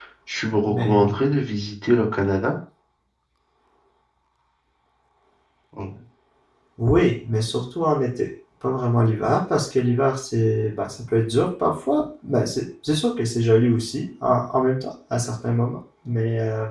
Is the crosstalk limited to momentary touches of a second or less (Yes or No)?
Yes